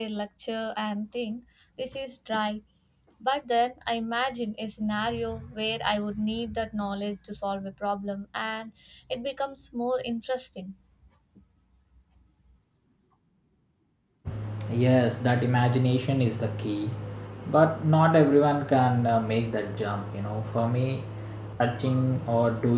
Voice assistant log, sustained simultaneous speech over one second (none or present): none